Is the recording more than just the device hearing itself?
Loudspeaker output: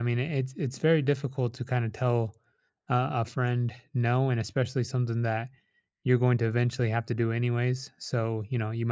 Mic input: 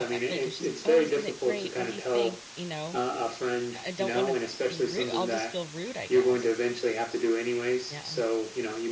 Yes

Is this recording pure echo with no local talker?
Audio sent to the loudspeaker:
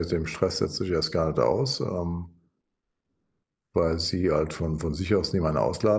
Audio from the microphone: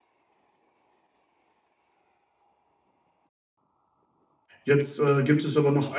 No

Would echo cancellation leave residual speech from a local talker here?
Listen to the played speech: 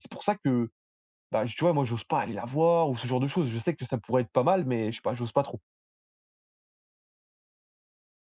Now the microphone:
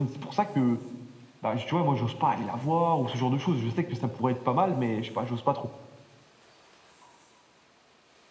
No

